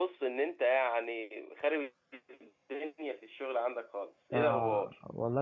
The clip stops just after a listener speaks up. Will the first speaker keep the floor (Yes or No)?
No